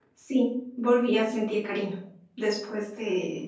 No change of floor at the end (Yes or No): Yes